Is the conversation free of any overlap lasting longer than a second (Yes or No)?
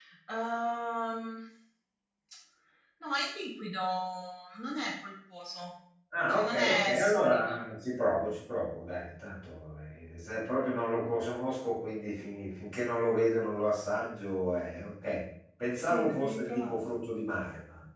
No